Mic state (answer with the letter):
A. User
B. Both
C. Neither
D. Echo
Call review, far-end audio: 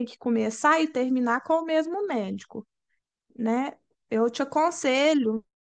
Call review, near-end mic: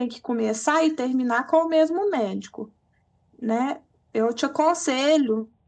D